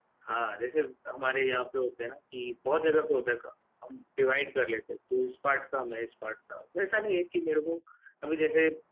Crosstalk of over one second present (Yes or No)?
No